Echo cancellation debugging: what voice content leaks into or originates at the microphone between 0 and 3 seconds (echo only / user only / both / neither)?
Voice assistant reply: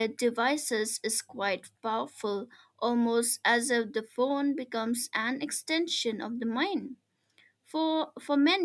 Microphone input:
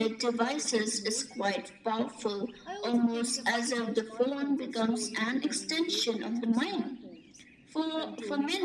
both